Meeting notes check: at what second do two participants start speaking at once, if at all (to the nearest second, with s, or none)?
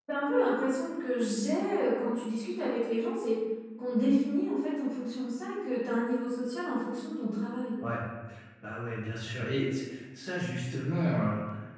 none